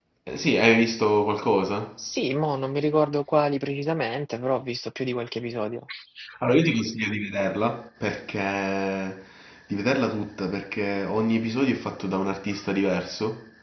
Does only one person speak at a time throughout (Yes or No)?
Yes